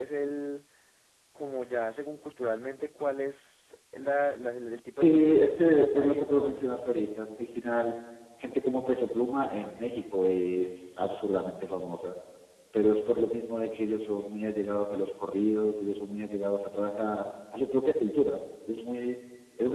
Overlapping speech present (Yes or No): Yes